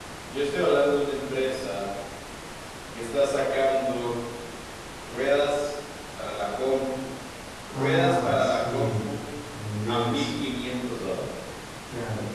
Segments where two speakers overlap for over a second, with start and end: 7.7-9.1

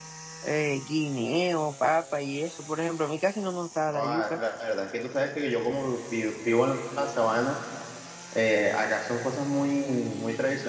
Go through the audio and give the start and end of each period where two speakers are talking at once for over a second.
none

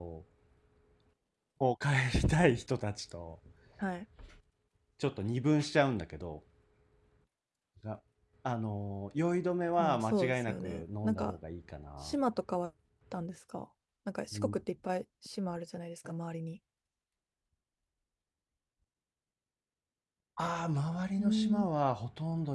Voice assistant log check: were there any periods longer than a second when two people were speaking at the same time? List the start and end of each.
9.8-11.4

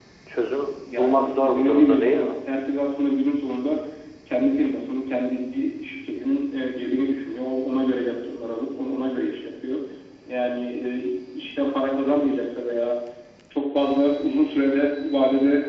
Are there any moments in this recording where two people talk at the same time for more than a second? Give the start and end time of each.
0.8-2.4

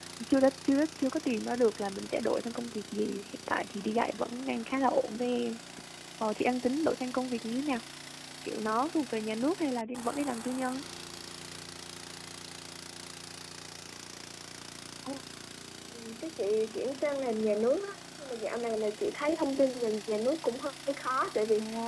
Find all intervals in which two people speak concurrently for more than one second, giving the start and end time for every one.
none

